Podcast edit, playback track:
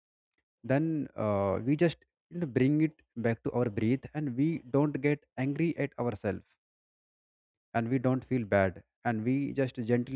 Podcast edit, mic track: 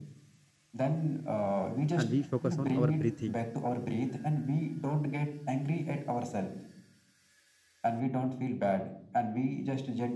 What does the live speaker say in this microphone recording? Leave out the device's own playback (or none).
and we focus on our breathing